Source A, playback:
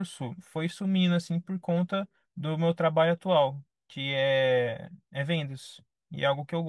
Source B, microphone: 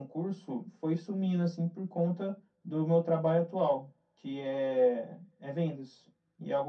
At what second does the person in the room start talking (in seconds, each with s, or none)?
none